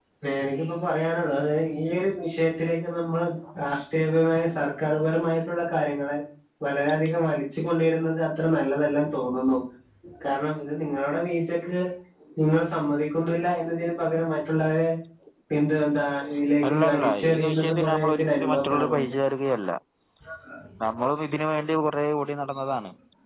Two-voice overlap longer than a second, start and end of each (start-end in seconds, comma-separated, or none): 16.7-19.1